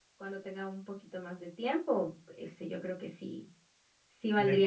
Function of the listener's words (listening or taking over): listening